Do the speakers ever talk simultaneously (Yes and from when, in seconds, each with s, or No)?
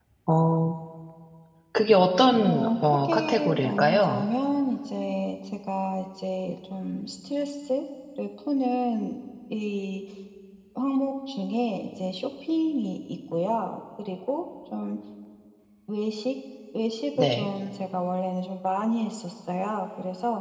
Yes, from 2.4 s